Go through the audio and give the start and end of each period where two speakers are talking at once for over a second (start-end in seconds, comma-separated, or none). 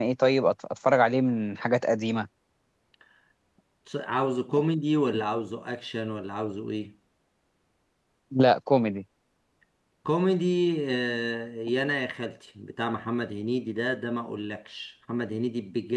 none